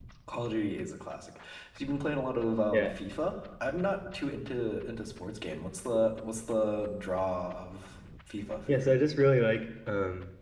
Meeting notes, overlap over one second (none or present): none